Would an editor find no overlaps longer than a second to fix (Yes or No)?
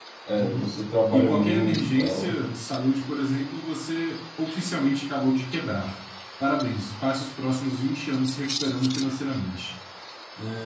No